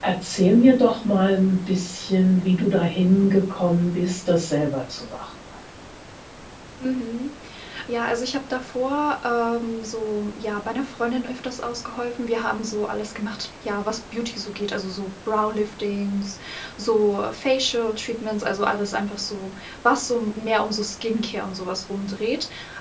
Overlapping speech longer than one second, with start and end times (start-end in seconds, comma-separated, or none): none